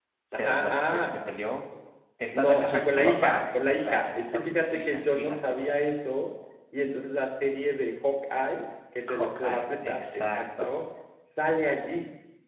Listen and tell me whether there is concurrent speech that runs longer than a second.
Yes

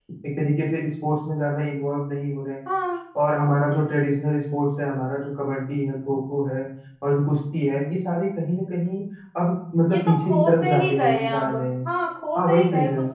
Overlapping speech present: Yes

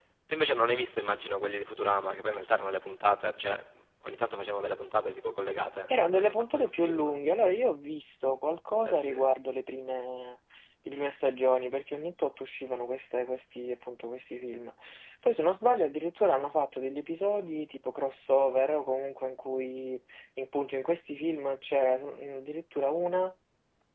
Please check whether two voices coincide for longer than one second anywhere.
Yes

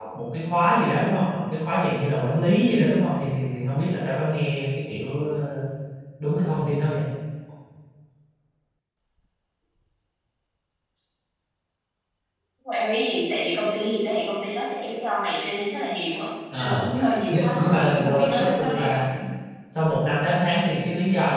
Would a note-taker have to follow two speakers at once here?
Yes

